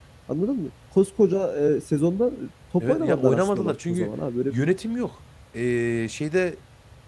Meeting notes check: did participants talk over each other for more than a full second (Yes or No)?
Yes